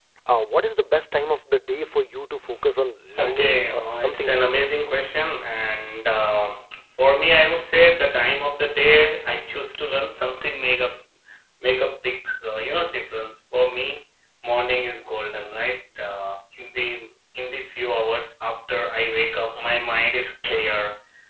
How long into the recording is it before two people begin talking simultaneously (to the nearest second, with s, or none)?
3 s